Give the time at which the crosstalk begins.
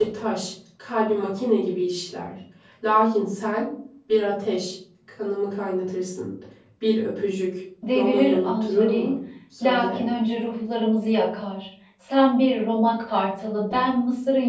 7.9 s

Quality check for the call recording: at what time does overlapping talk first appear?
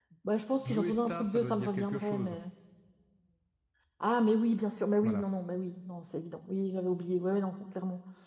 0.6 s

